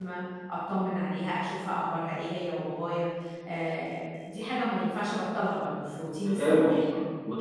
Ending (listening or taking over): taking over